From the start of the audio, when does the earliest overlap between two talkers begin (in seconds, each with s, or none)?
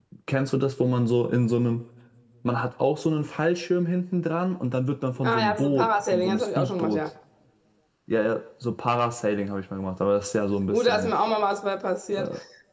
5.2 s